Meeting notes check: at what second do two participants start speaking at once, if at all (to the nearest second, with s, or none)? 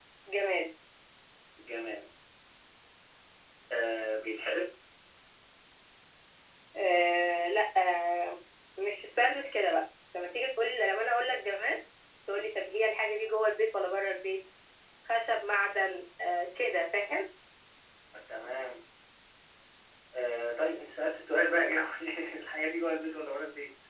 none